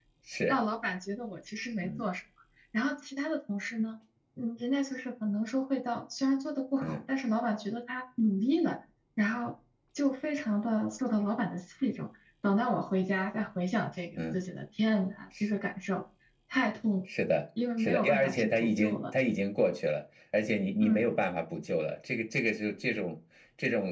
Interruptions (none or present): present